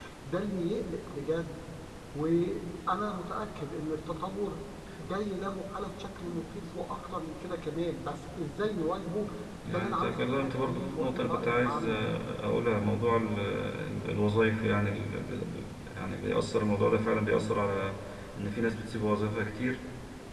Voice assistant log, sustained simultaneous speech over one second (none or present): present